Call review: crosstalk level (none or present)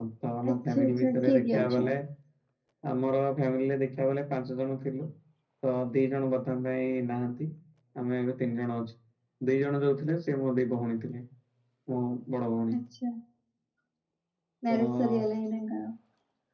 present